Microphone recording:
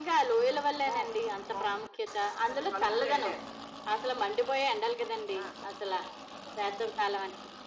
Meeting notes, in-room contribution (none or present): none